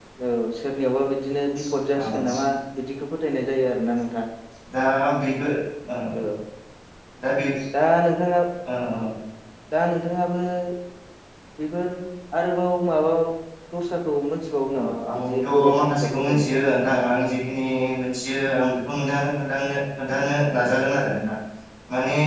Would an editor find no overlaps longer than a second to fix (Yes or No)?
No